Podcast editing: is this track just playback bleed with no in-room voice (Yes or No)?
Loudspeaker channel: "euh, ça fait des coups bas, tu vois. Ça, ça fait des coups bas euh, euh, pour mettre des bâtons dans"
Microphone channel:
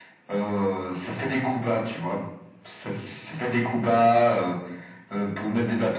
Yes